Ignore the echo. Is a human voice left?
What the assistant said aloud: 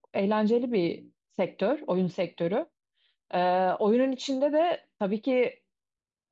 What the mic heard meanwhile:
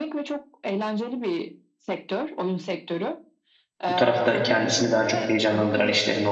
Yes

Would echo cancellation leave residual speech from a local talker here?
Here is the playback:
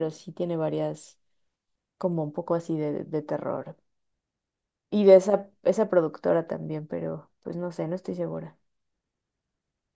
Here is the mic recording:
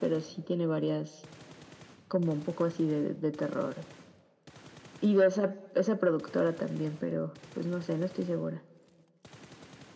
No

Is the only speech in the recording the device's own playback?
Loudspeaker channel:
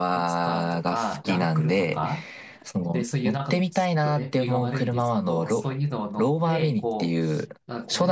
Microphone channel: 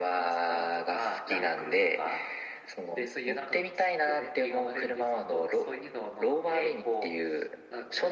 Yes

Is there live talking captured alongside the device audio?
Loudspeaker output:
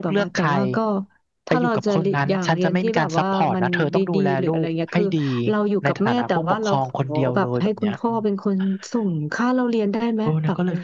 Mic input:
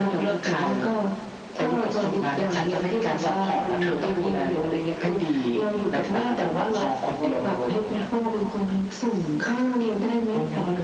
No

